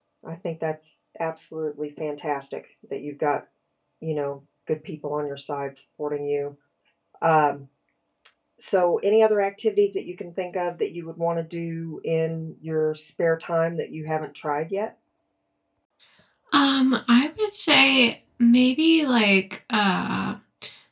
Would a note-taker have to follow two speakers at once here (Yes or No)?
No